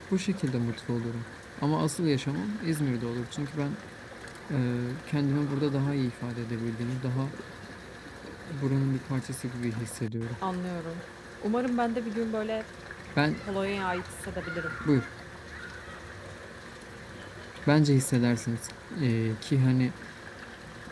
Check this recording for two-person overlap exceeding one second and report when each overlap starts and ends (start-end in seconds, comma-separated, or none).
none